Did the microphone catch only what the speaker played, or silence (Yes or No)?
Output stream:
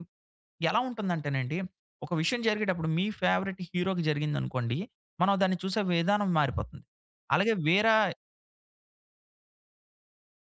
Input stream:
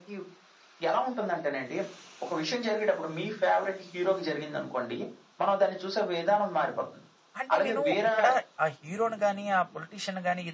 No